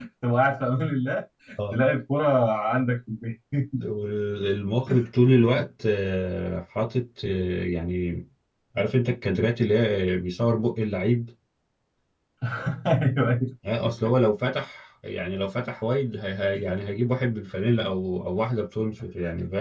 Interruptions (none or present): none